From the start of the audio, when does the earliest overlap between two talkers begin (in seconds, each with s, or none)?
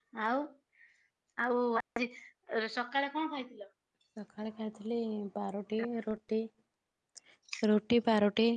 none